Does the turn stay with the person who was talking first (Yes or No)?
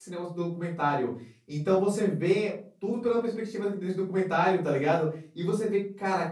Yes